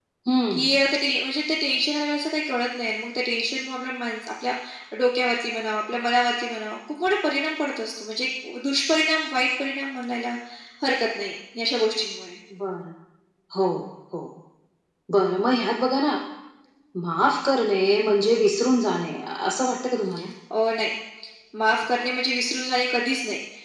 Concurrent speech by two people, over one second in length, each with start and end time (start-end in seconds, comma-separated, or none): none